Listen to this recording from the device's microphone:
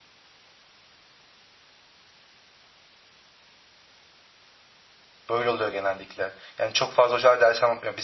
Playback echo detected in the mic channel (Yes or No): No